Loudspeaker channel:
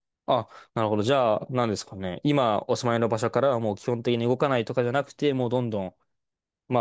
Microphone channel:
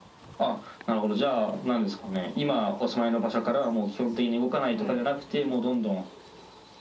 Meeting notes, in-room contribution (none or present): present